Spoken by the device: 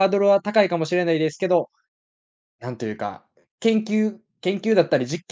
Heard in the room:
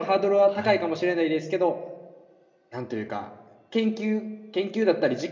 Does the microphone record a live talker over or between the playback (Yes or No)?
Yes